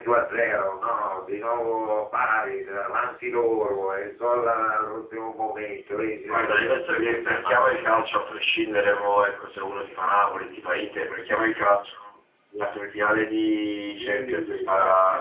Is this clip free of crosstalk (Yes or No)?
No